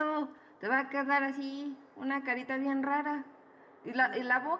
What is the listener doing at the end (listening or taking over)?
listening